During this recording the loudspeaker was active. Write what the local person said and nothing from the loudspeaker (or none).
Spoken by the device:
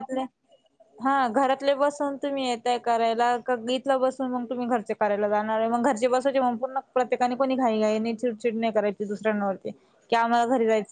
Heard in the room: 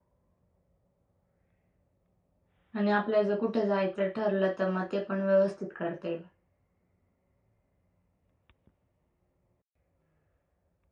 आणि आपल्याला जर कुठं जायचं ठरलं तर, मग ते पण व्यवस्थित करता येईल.